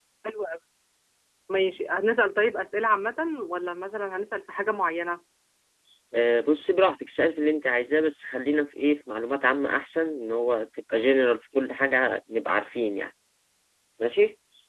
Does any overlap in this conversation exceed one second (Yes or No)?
No